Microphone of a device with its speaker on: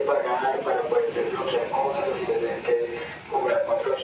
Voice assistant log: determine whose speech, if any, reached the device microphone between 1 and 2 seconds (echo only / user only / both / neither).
echo only